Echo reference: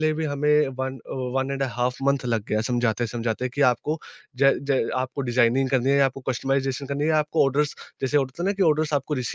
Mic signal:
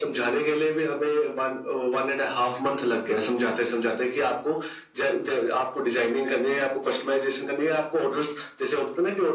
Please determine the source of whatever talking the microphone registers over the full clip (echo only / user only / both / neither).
echo only